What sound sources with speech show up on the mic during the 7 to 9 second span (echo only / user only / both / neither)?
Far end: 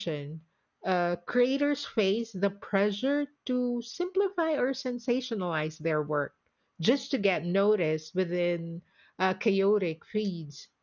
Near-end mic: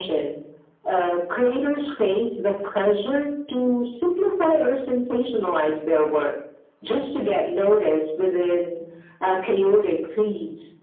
echo only